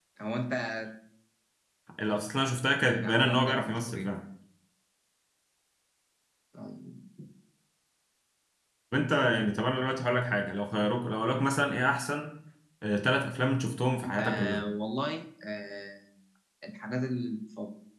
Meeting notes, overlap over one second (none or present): present